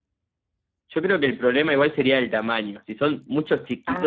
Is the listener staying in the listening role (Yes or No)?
Yes